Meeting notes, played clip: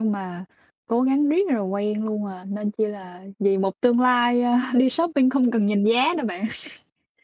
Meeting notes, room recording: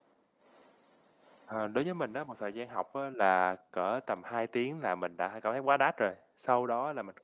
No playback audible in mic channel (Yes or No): Yes